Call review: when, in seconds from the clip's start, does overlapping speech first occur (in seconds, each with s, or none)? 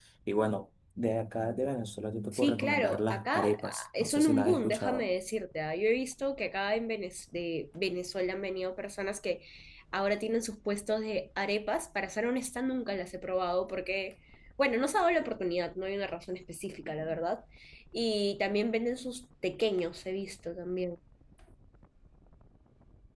2.3 s